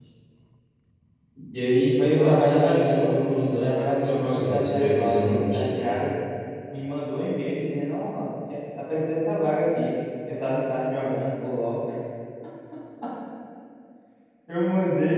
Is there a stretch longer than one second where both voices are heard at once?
Yes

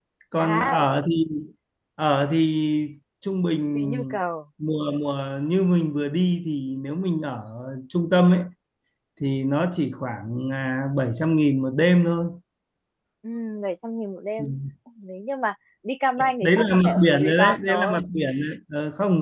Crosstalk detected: Yes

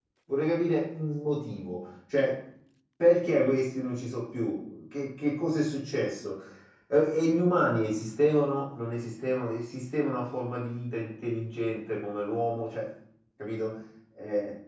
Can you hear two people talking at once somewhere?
No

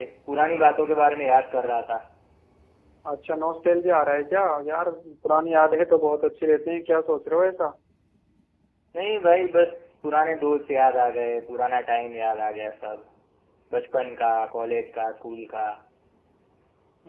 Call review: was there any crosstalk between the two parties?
No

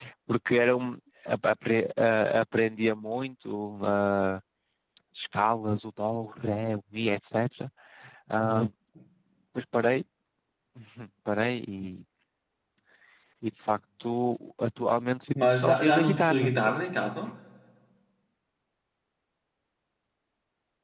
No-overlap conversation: No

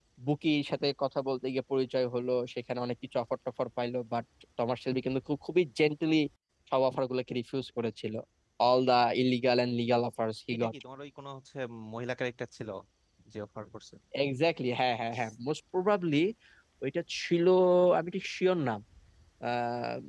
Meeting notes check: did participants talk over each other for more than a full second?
No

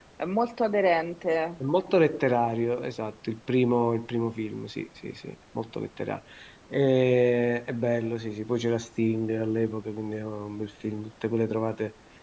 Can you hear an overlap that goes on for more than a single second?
No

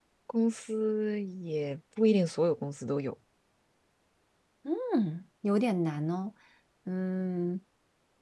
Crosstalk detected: No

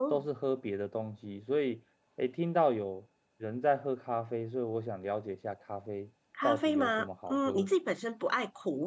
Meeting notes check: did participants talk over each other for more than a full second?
Yes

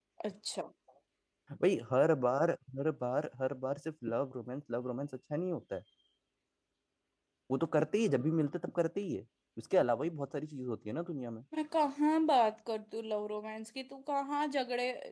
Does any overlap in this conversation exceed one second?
No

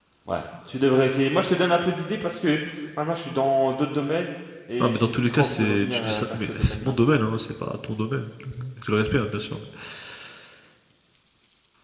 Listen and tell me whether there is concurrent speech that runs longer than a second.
Yes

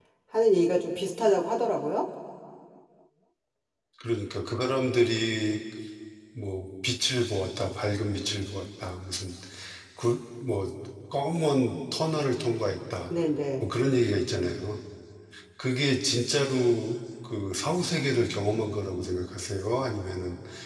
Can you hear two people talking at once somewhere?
No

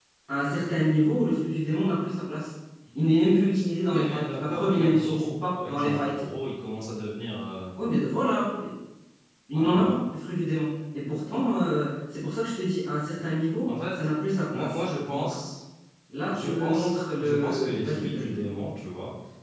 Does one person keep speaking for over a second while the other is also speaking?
Yes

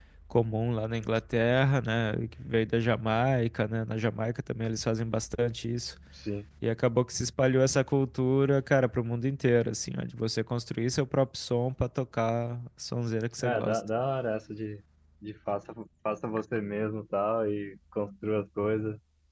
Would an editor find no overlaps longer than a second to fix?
Yes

